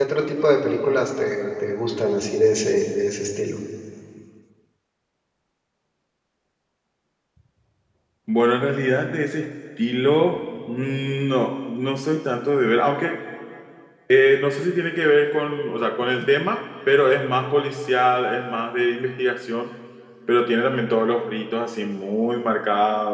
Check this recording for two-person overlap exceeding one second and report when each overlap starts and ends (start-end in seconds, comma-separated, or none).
none